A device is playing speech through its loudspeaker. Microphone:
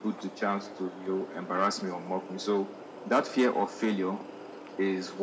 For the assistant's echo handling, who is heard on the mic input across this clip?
echo only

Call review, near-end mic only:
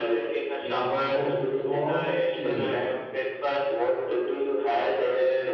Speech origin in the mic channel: both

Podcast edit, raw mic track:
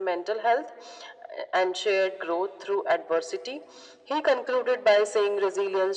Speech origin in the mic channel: echo only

